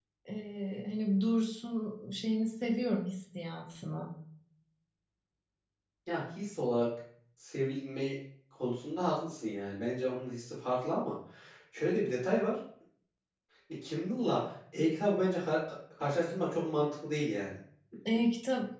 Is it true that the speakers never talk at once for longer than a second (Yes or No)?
Yes